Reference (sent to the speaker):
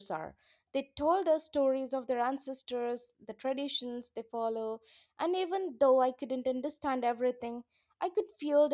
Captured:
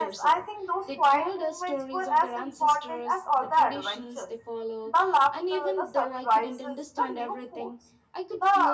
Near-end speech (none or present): present